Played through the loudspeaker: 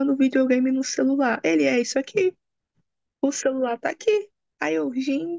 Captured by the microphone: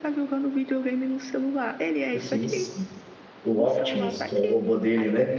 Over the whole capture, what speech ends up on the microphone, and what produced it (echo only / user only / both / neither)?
both